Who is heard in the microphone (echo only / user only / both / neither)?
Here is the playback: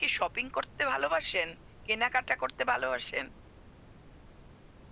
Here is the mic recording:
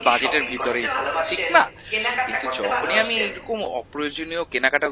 both